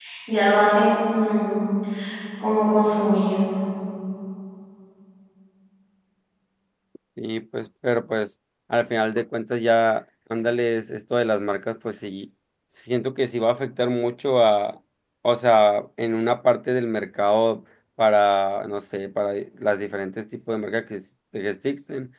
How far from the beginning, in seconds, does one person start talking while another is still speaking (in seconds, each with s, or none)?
none